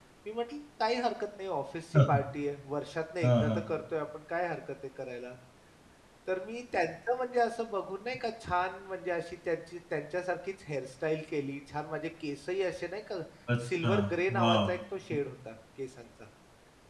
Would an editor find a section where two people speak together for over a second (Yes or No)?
No